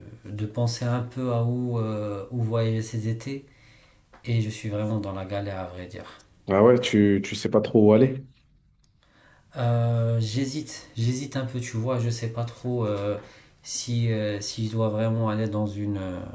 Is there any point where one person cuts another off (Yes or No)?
No